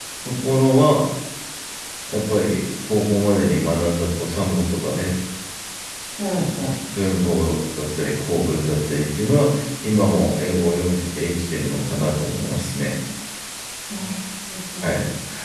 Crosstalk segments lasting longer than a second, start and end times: none

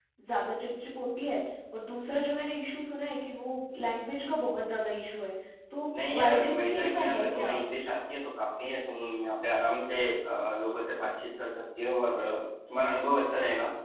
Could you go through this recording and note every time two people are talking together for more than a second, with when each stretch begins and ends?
6.1-7.6

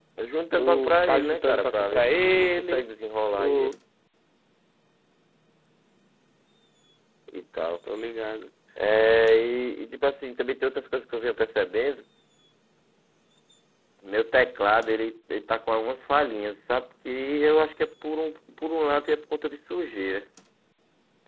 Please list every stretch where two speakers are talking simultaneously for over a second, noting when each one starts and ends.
0.6-2.9

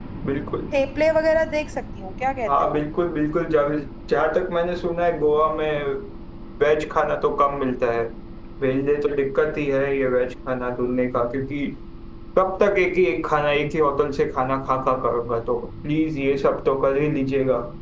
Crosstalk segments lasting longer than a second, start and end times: none

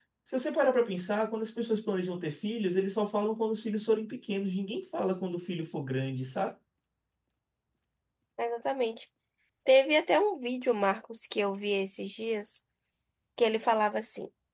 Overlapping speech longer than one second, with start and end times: none

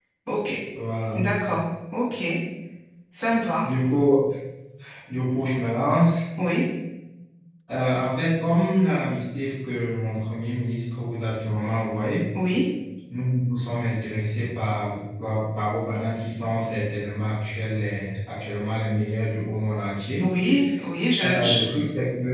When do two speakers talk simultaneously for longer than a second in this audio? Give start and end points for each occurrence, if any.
none

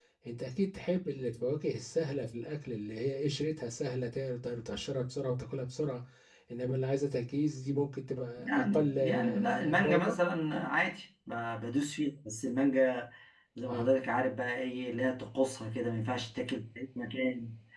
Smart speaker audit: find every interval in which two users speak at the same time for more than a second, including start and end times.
8.4-10.2

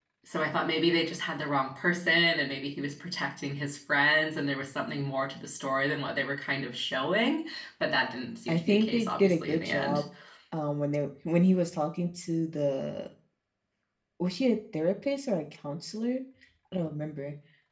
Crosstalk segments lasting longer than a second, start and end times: 8.5-10.0

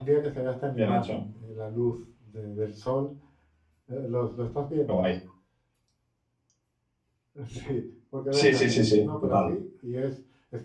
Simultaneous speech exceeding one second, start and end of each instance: 8.3-9.5

